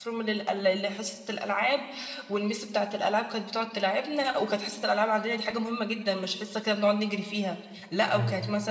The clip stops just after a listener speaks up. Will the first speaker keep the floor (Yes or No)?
Yes